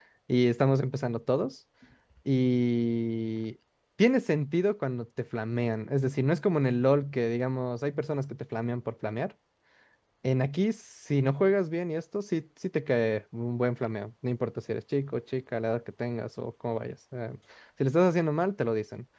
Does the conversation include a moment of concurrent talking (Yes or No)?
No